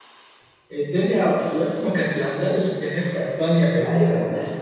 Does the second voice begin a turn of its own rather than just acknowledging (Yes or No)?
Yes